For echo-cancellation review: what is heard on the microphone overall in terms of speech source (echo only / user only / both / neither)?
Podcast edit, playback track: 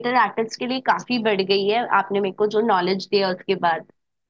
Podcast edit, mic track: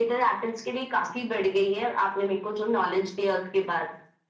echo only